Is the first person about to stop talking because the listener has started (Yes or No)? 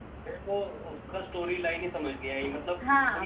Yes